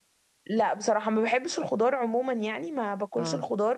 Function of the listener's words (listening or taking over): listening